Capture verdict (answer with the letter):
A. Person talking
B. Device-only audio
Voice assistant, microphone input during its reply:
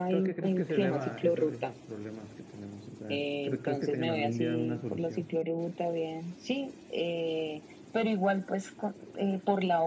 A